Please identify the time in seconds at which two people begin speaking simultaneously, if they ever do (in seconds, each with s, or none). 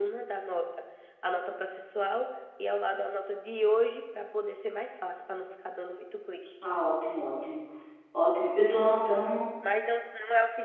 none